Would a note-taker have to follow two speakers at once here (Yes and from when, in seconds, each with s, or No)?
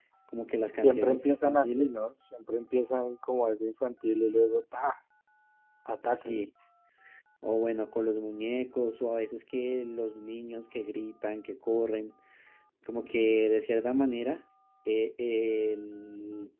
Yes, from 0.7 s